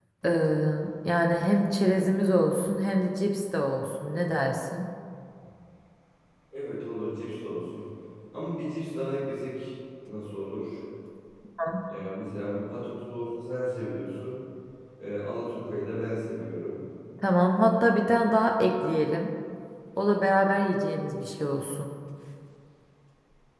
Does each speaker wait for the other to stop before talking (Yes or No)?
Yes